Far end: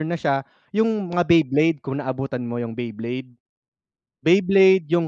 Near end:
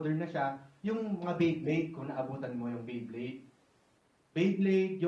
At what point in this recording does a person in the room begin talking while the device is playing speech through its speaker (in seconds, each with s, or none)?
none